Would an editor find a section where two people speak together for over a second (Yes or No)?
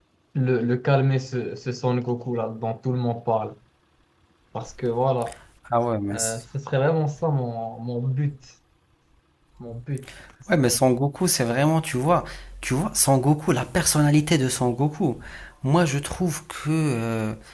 No